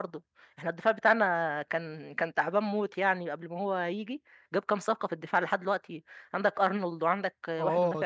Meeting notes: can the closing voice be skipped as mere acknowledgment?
No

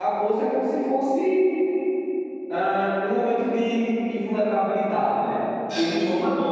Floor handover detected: No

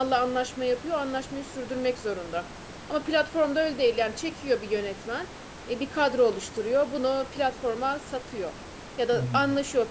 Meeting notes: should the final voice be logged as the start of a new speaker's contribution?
No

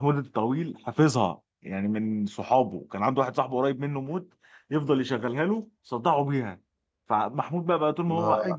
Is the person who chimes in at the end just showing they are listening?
Yes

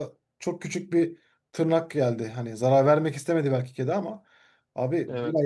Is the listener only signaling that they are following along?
Yes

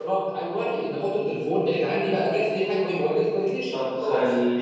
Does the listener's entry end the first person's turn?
Yes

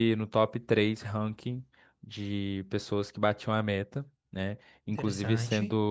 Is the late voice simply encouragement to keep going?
Yes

